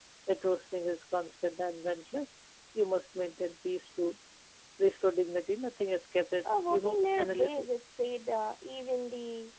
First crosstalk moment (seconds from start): 6.4 s

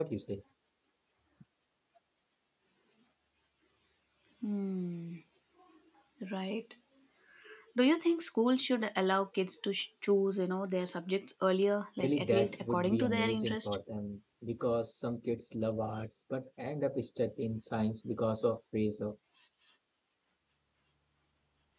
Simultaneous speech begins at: 12.0 s

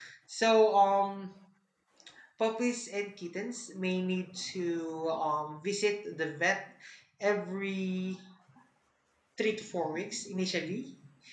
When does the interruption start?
none

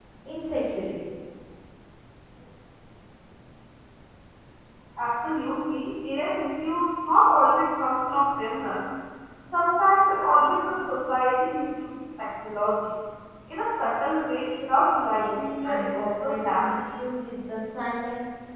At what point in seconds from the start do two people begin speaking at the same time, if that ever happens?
15.1 s

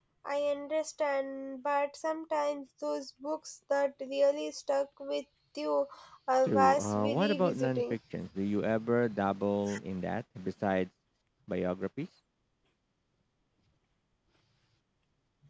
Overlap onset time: 6.5 s

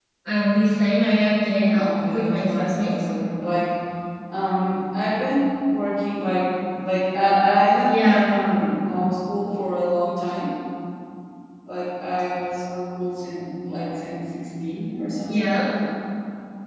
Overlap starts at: 1.7 s

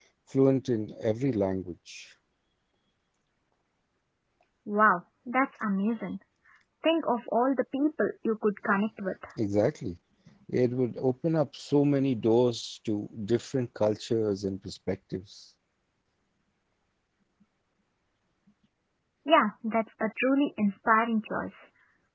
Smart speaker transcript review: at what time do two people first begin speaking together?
none

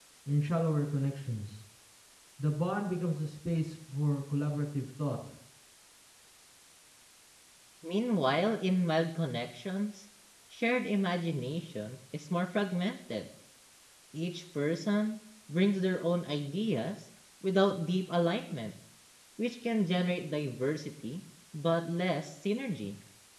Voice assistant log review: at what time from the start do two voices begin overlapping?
none

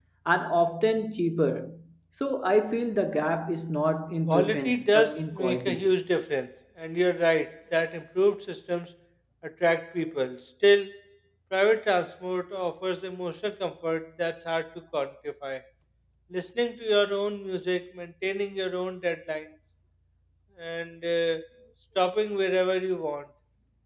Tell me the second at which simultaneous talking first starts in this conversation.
4.3 s

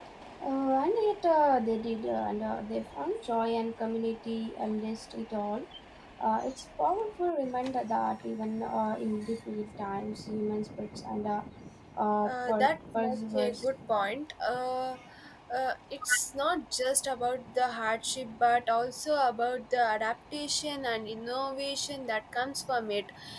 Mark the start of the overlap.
12.3 s

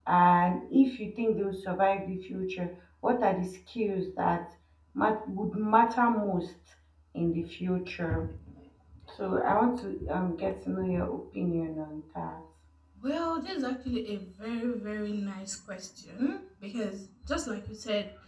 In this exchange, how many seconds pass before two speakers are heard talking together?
none

